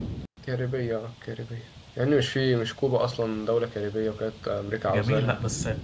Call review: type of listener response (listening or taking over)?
taking over